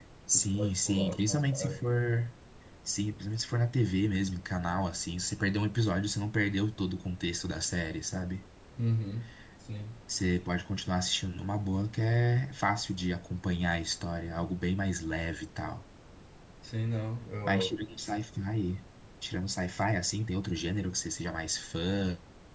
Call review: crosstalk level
present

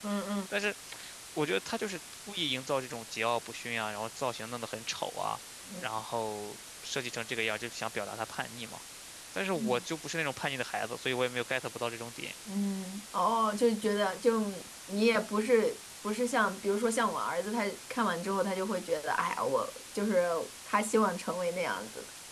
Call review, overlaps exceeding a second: none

